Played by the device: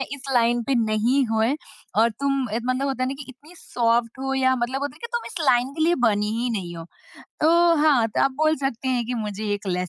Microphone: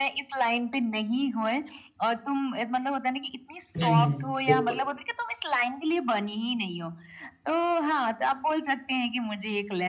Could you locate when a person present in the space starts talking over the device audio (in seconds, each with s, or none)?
3.8 s